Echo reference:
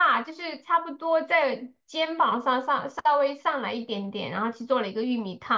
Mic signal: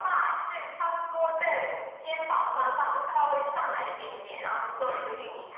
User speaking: No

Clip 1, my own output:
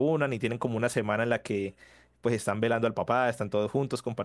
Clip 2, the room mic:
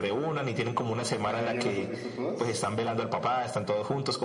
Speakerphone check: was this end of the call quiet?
No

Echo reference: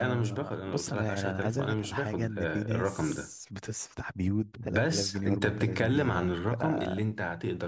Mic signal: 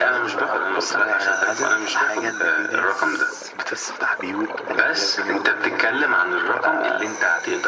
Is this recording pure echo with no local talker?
Yes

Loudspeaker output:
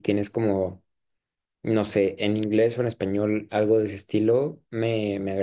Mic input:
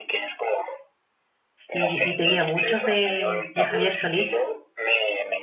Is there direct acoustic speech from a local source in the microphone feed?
Yes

